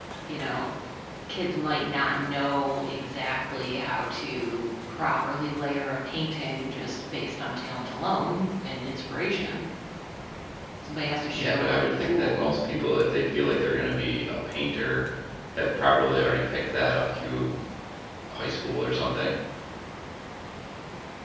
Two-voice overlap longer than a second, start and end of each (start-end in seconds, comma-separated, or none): 11.3-12.7